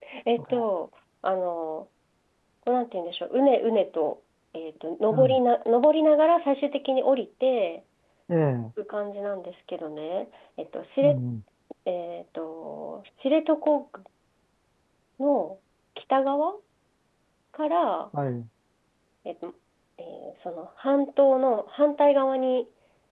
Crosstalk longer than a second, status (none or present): none